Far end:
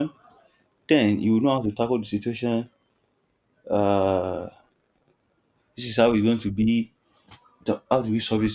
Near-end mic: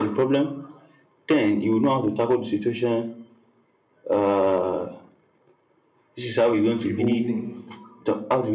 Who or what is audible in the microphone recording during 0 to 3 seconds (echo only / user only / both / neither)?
echo only